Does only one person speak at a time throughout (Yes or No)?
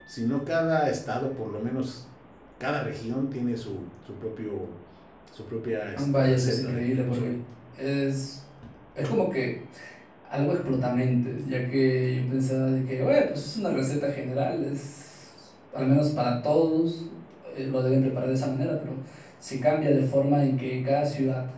No